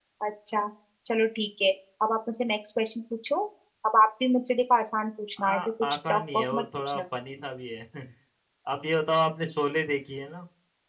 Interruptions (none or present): present